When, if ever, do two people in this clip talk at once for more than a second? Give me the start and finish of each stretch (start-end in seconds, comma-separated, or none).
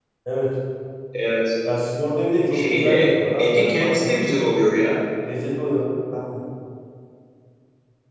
2.5-4.5